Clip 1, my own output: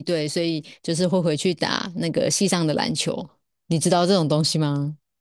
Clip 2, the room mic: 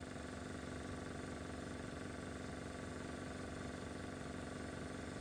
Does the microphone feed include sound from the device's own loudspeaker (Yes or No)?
No